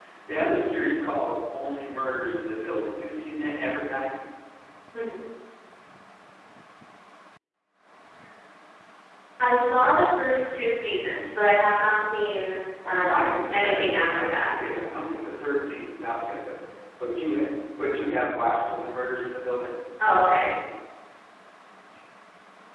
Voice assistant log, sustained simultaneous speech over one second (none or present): present